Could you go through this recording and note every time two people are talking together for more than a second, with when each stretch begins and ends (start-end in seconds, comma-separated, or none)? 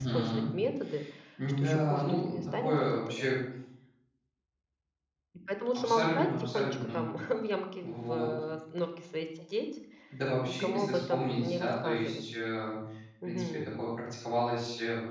1.6-3.3, 5.7-7.0, 10.4-12.2